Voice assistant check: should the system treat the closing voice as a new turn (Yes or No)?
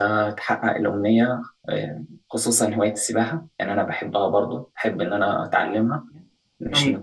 No